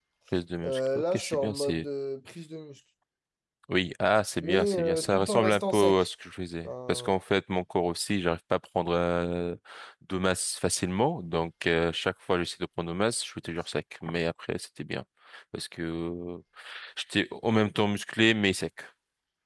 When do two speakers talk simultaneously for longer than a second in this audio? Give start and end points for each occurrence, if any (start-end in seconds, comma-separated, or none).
0.6-1.9, 4.4-6.1